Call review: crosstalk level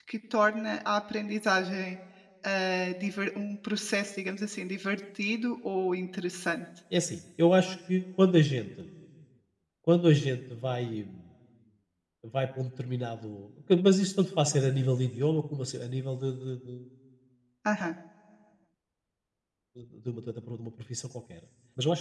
none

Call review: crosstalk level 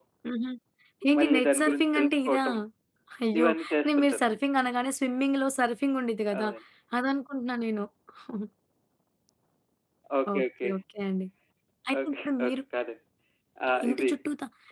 present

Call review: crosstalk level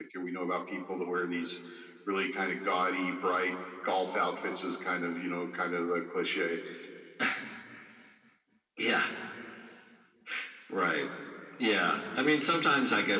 none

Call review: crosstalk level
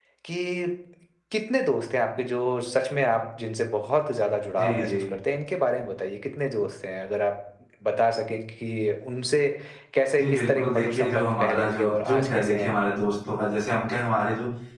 present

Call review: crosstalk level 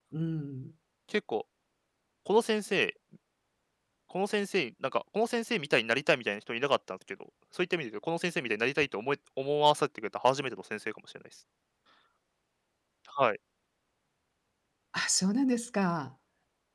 none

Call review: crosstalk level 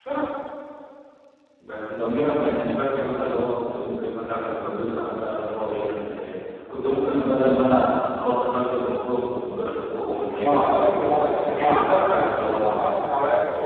present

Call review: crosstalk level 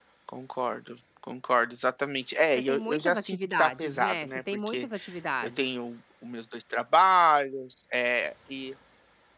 present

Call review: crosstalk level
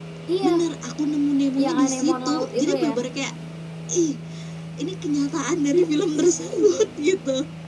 present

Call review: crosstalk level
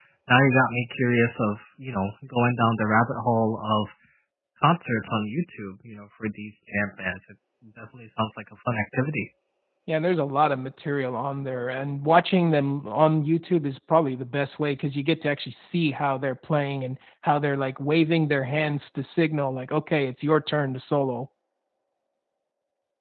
none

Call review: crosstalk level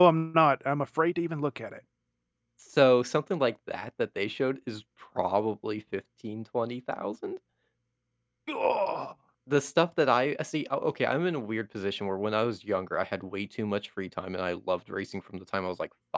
none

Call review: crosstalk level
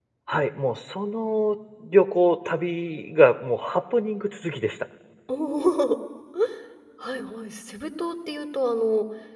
none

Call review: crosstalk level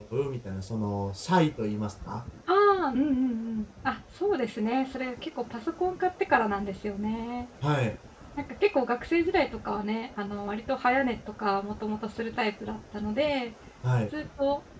none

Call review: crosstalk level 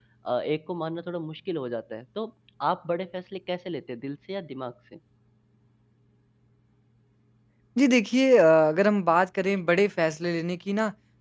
none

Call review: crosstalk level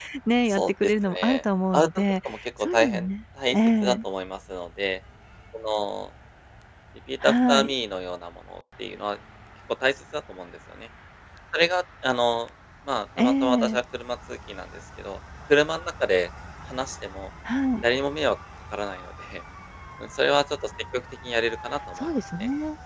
present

